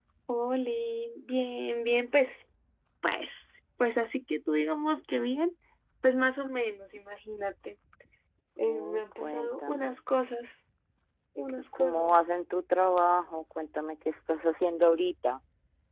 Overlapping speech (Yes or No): Yes